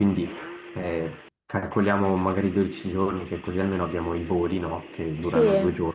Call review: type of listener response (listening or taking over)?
listening